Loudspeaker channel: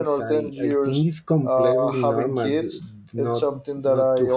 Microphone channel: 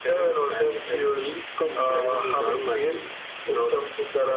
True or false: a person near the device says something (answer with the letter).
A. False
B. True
A